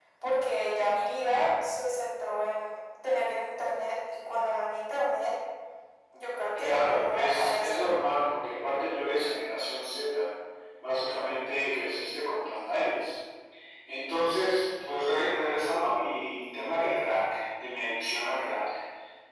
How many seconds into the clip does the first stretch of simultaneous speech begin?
6.6 s

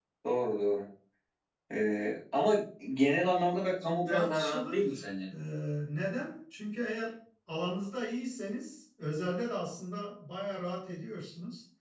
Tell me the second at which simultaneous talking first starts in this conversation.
3.8 s

